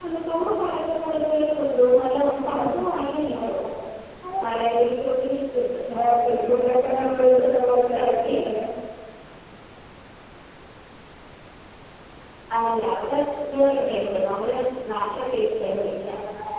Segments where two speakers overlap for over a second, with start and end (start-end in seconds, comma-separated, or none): 6.0-7.4